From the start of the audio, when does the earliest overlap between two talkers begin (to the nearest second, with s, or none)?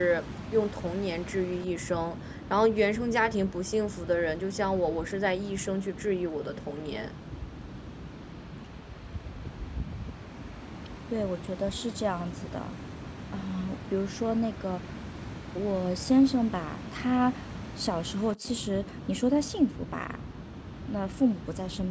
none